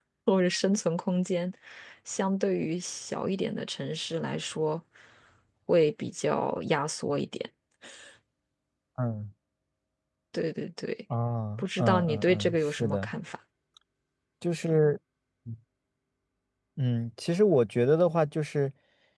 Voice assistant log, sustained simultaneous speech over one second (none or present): present